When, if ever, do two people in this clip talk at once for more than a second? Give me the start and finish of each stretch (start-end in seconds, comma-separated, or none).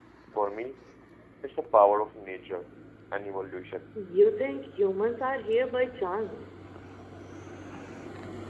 none